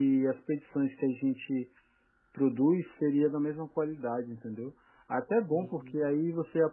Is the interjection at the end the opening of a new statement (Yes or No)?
No